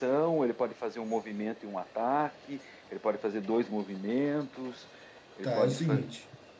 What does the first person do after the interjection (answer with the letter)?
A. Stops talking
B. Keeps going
A